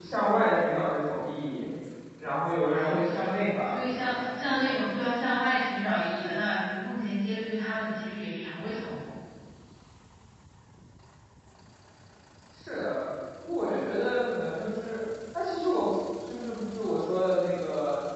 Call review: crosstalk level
present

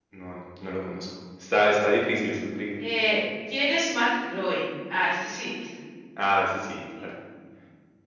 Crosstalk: none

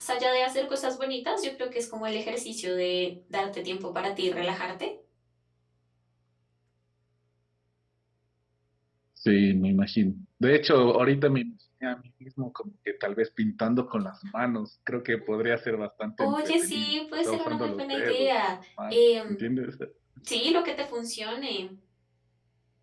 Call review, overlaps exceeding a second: present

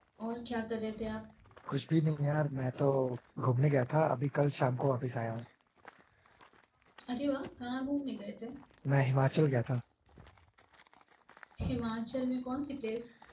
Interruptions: none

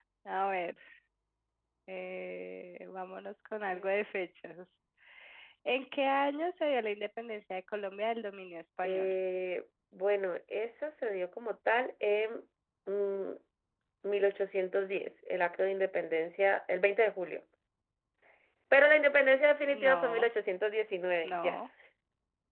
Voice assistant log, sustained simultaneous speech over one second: none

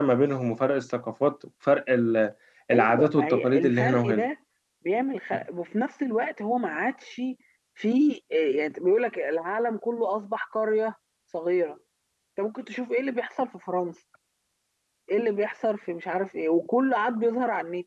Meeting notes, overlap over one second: present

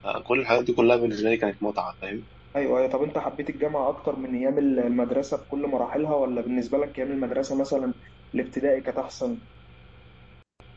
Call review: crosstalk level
none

